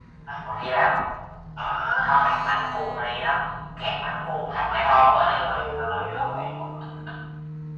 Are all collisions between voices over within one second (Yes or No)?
No